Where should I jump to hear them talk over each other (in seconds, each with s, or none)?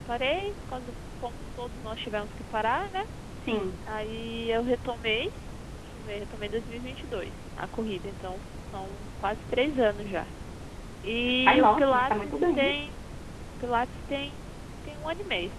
11.4 s